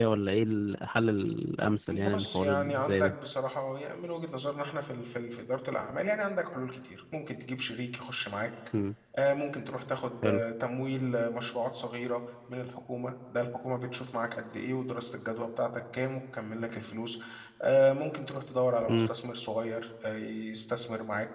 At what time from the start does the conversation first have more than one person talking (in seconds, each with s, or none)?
1.9 s